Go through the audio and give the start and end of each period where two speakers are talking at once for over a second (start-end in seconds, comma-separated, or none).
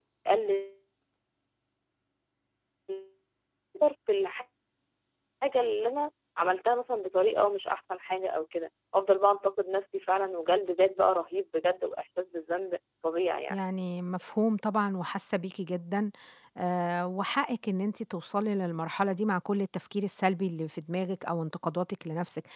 none